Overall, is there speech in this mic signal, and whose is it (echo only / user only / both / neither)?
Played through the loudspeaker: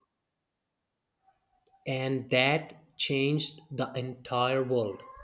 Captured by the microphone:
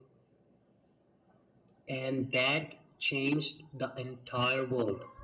echo only